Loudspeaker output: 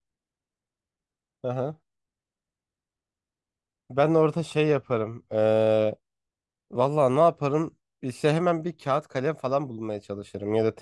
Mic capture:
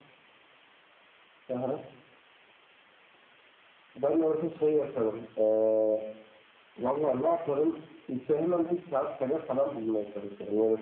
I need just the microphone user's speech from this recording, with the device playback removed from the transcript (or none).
none